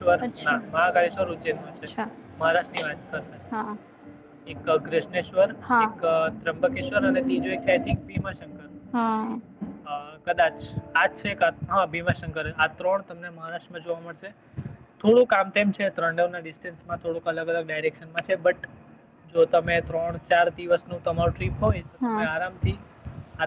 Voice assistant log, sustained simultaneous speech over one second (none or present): none